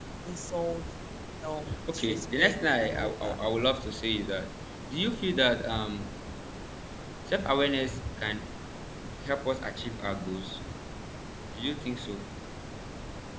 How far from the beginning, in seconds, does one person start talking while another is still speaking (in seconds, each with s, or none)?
1.9 s